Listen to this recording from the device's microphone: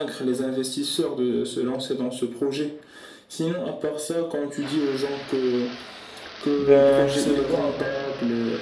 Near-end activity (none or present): present